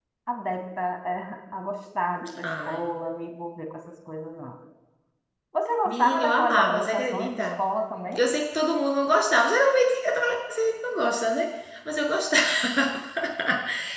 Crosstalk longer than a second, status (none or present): present